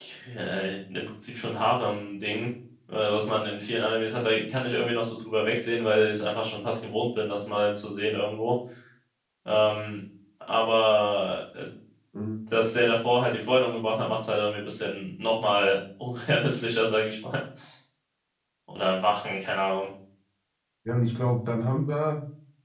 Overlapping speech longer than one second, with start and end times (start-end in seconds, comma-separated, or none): none